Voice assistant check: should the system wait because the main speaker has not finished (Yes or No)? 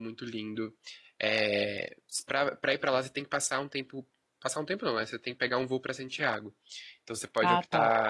Yes